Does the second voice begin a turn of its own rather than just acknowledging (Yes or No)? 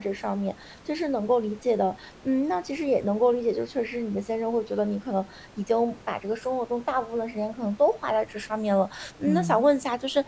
No